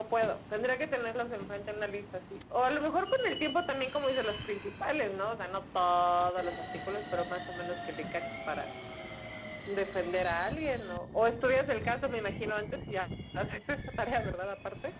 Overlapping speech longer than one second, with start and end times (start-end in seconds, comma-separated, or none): none